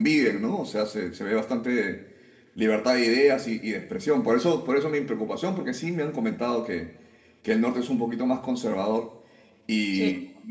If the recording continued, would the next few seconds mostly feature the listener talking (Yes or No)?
No